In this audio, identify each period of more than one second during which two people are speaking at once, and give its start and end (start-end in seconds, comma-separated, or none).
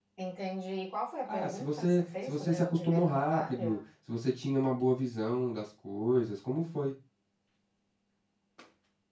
1.3-3.8